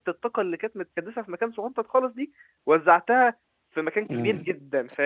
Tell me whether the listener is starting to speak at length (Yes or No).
Yes